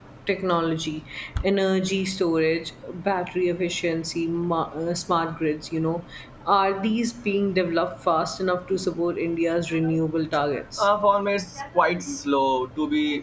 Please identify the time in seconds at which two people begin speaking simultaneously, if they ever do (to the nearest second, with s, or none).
none